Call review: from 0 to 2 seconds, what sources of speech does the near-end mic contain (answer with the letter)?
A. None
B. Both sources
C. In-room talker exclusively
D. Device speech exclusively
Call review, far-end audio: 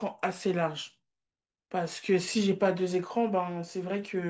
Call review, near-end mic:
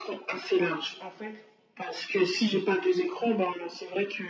B